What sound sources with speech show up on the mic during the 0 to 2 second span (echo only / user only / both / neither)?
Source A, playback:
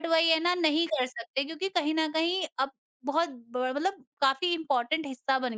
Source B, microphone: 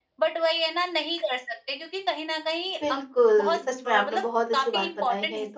echo only